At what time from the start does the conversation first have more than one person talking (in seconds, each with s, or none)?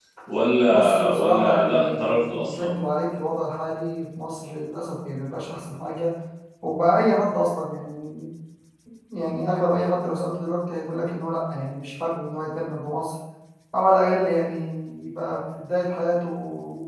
0.7 s